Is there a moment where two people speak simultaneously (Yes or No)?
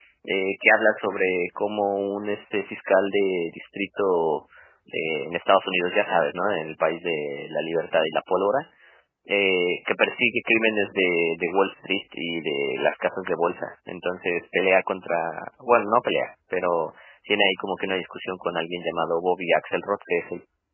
No